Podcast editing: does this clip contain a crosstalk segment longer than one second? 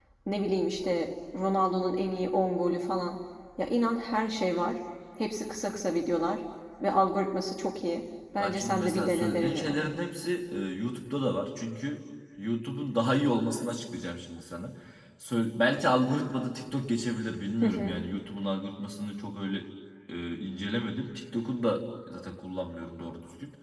Yes, from 8.4 s

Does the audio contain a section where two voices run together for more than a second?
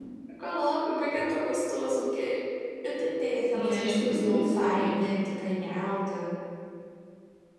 Yes, from 3.5 s

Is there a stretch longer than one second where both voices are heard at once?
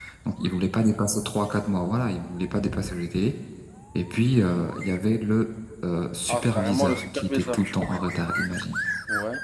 Yes, from 6.3 s

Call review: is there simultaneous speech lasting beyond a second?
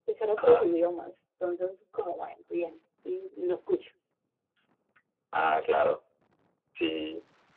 No

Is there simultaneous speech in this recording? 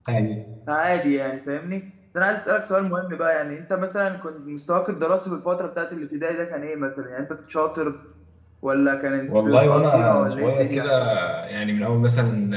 Yes, from 9.3 s

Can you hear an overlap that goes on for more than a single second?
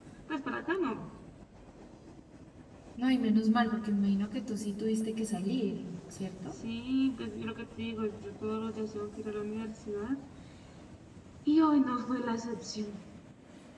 No

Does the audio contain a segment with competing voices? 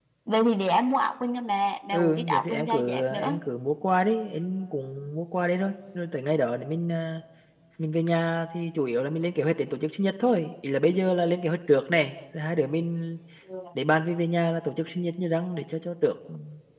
Yes, from 1.9 s

